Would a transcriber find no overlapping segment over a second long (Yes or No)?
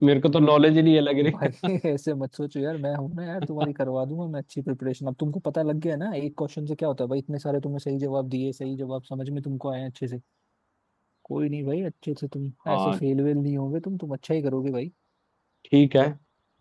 Yes